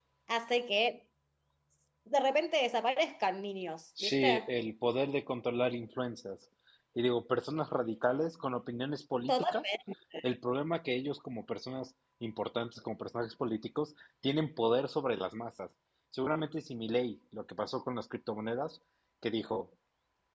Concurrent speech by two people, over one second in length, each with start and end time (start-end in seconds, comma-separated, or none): none